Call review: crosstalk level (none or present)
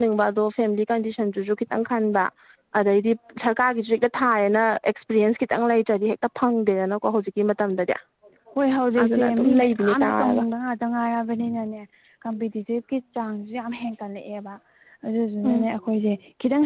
present